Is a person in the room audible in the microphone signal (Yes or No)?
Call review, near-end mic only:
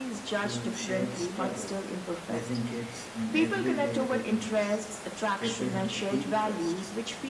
Yes